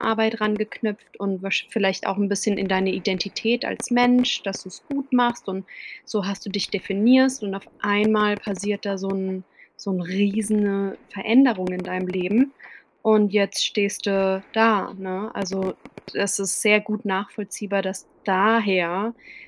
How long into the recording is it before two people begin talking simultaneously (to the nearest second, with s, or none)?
none